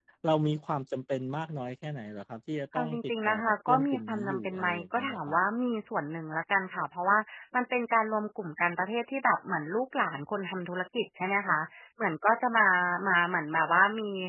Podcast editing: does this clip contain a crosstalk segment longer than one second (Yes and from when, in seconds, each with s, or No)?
Yes, from 2.7 s